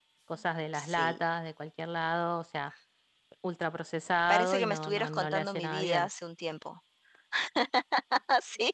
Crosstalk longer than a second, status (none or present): present